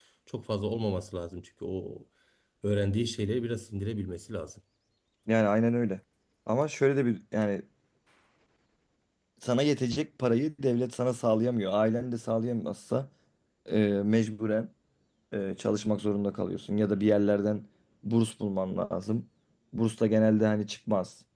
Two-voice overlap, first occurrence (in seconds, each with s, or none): none